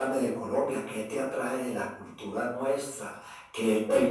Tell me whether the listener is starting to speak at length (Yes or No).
No